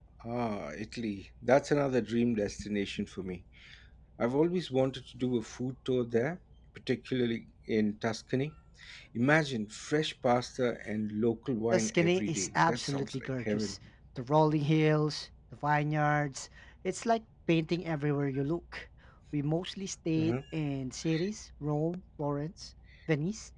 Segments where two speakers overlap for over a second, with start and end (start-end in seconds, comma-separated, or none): 11.7-13.8